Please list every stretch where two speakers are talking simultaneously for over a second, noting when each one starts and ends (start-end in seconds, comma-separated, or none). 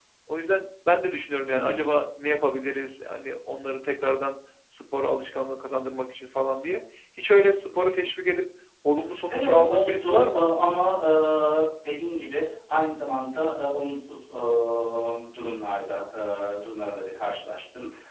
9.3-10.5